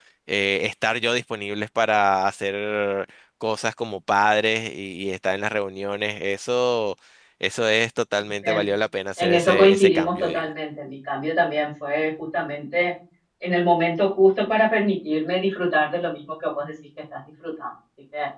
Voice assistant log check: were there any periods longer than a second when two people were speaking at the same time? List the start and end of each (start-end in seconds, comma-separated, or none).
9.2-10.5